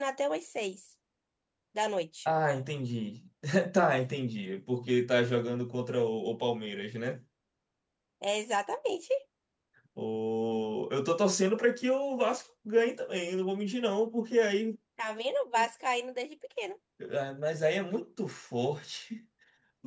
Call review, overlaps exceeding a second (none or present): none